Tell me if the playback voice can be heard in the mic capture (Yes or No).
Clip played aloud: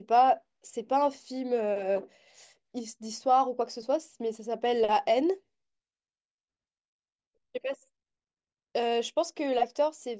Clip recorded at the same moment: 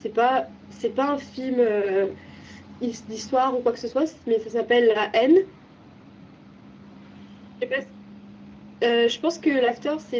Yes